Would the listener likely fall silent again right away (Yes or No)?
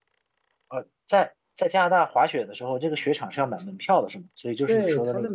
No